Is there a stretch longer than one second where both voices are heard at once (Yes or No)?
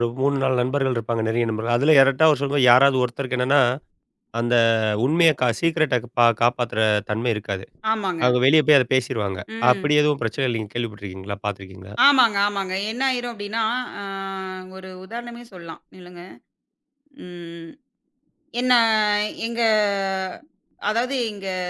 No